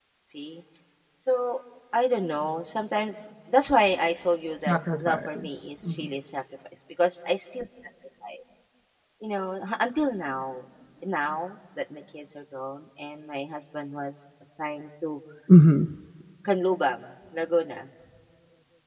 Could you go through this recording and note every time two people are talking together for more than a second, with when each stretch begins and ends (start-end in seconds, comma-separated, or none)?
4.6-6.1